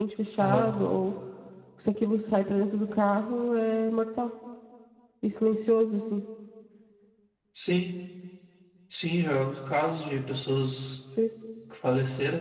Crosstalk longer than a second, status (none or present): none